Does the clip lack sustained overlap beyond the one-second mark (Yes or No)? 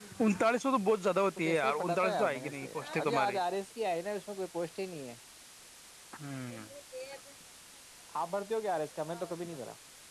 No